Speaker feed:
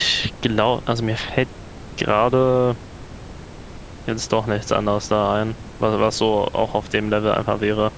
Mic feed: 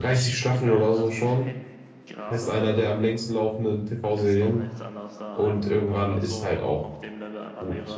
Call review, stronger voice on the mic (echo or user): user